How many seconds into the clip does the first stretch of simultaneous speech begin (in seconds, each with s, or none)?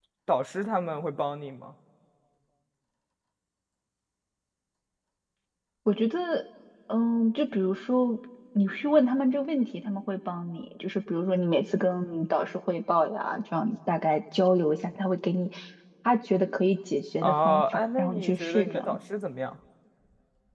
17.2 s